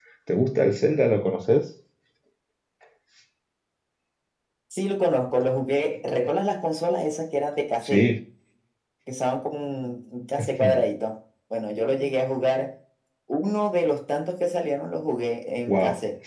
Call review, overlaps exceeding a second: none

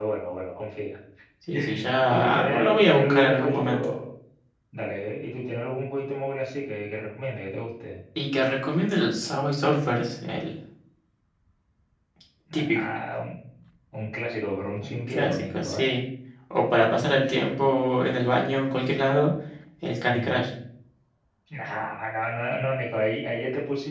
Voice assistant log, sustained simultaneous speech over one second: present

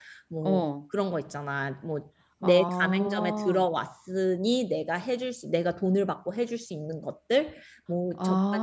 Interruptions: present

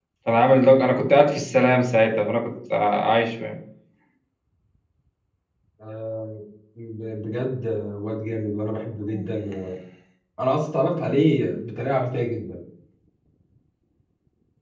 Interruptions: none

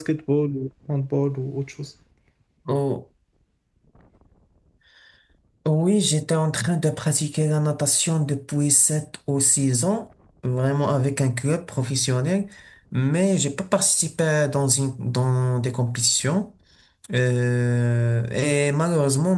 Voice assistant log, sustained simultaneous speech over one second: none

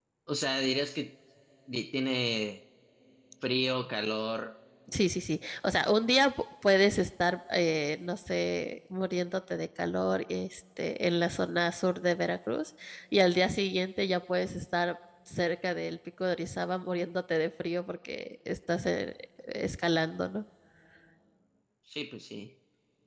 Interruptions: none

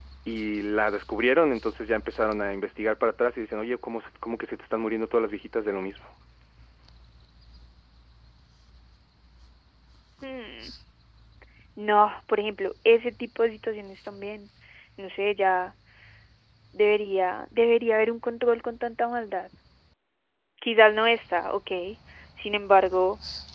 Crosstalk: none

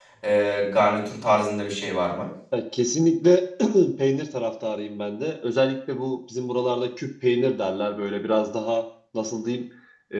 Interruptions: none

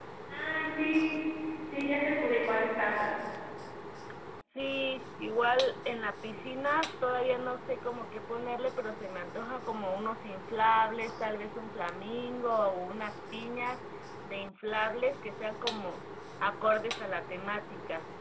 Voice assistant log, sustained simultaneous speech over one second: none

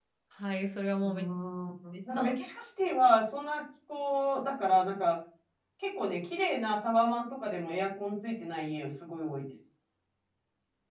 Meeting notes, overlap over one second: none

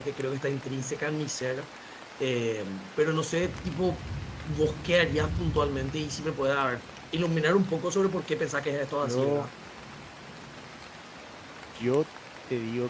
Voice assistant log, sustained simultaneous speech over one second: none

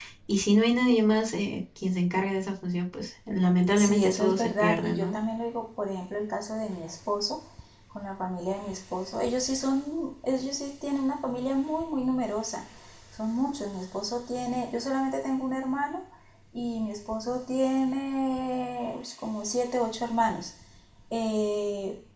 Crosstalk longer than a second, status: present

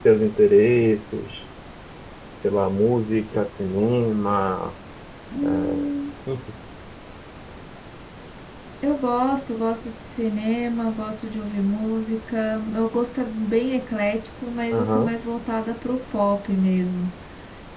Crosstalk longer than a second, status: none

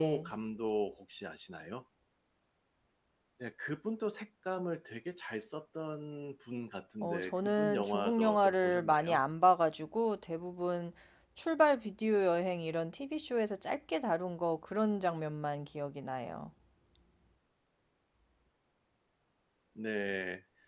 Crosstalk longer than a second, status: present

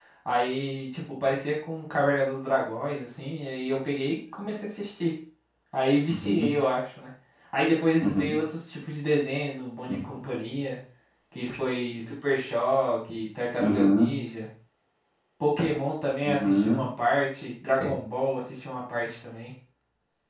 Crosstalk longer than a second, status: none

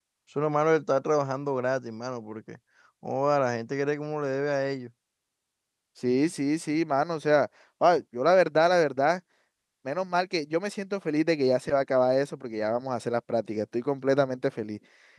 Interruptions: none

